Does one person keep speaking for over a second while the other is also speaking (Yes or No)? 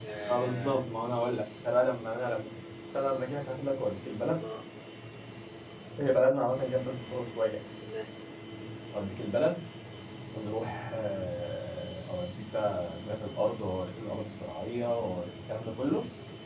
No